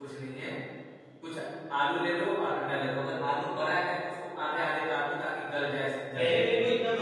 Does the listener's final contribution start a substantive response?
Yes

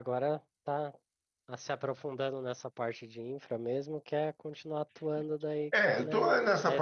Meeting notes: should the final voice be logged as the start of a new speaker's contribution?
Yes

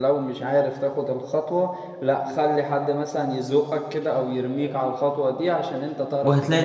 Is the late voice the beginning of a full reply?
Yes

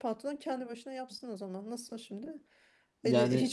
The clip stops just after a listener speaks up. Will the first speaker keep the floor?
Yes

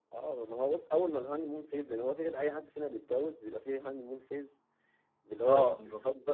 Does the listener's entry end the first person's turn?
No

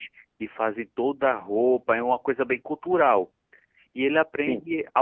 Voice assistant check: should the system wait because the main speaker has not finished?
Yes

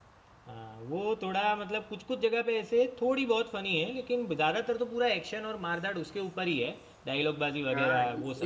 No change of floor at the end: No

